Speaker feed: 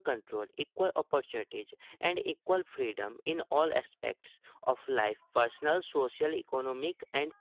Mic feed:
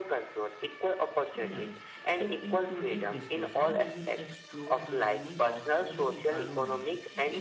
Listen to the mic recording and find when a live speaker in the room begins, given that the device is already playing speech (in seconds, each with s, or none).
1.3 s